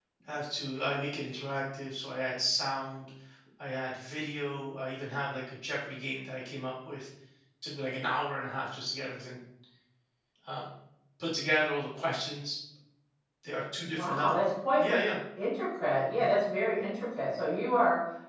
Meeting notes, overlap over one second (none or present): none